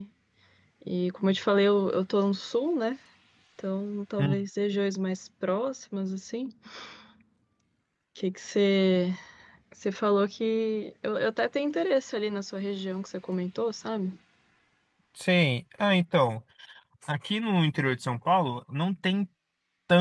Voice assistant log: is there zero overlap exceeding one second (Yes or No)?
Yes